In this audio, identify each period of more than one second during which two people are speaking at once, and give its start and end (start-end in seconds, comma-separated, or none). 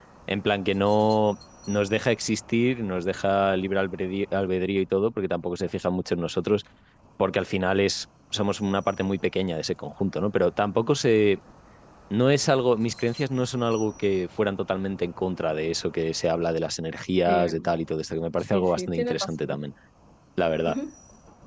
18.4-19.7